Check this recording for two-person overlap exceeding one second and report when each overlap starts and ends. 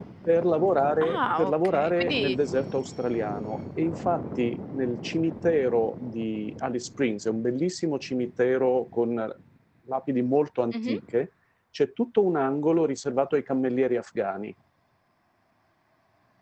1.0-2.4

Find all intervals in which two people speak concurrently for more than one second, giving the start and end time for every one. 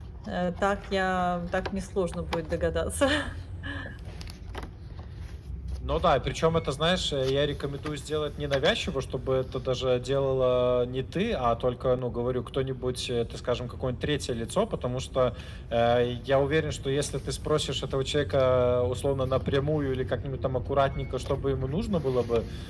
none

